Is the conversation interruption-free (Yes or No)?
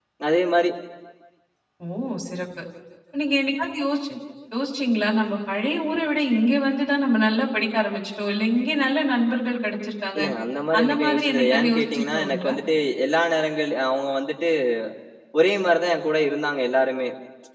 No